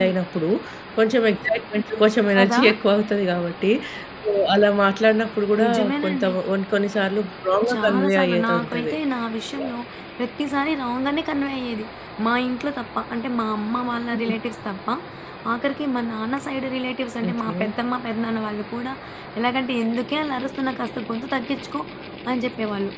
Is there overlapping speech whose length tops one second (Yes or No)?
Yes